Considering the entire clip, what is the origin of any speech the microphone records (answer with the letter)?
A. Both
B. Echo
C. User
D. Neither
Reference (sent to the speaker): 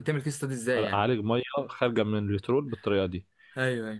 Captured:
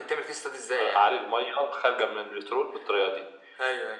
B